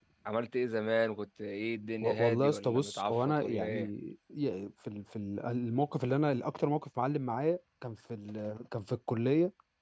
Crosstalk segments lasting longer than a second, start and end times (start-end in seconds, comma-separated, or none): 2.0-3.8